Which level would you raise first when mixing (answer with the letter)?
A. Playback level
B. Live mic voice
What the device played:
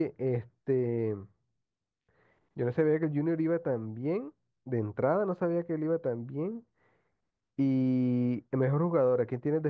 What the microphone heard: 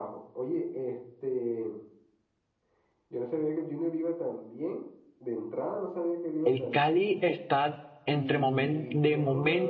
A